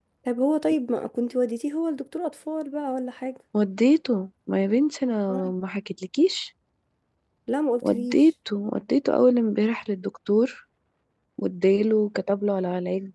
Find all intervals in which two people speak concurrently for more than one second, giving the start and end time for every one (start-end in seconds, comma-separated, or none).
none